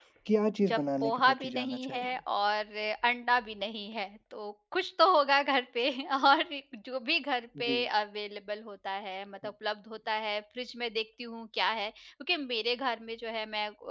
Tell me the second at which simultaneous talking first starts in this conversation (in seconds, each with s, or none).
0.7 s